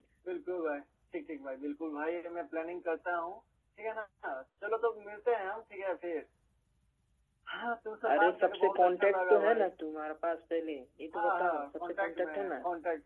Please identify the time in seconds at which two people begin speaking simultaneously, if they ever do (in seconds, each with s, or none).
8.1 s